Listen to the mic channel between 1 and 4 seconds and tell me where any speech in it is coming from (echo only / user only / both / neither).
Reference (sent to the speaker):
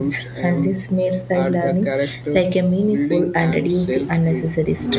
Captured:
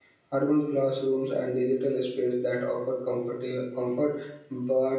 user only